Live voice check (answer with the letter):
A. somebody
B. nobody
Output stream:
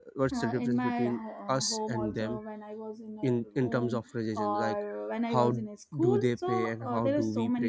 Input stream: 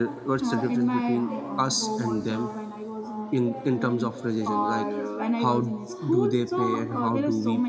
A